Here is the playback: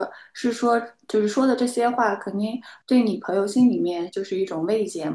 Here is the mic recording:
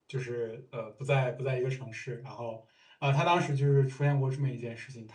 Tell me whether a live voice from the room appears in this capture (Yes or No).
Yes